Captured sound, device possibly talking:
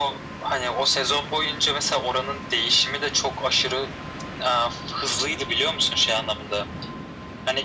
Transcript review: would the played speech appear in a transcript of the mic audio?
Yes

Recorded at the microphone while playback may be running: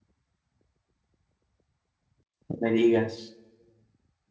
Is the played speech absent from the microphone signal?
Yes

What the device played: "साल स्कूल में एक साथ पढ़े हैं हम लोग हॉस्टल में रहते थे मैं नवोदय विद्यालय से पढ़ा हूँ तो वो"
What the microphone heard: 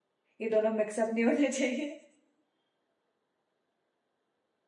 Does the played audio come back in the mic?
No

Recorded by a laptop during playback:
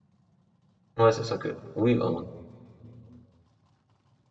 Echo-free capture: Yes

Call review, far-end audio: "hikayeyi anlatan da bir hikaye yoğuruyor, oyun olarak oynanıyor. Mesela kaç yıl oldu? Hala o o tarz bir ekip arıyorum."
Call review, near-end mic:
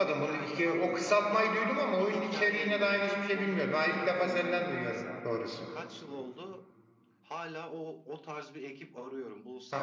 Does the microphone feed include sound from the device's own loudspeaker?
Yes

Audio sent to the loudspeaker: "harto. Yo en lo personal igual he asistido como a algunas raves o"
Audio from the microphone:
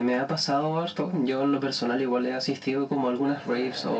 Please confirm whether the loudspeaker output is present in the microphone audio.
Yes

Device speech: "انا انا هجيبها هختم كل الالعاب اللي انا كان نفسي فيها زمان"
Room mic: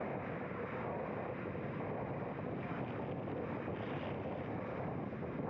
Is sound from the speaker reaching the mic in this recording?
No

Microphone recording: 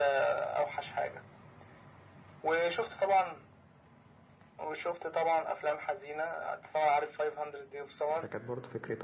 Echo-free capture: No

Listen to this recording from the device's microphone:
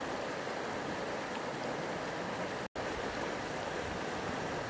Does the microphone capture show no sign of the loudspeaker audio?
Yes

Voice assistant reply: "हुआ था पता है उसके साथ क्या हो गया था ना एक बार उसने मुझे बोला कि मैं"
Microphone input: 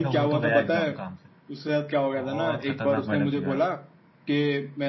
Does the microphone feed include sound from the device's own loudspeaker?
Yes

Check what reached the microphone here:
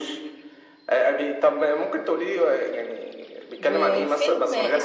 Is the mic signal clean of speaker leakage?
No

